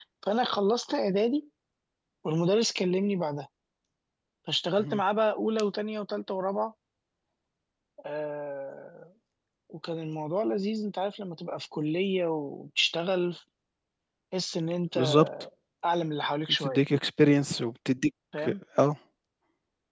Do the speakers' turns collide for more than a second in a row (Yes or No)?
No